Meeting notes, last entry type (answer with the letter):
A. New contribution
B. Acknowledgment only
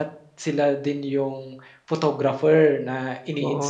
A